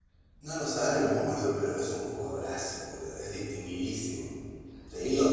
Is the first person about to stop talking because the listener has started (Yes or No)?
No